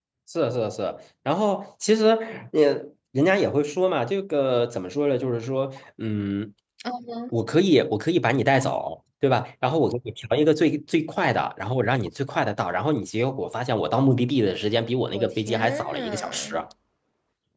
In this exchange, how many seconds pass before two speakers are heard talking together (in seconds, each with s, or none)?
15.1 s